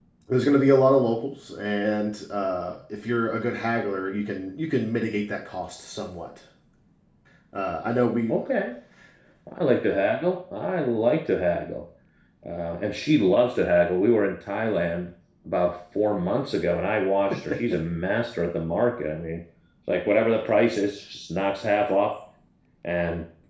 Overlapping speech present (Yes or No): No